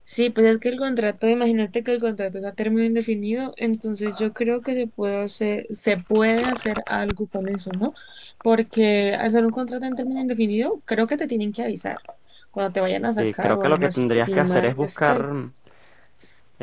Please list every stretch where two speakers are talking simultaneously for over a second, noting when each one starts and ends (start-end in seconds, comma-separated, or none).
13.2-15.2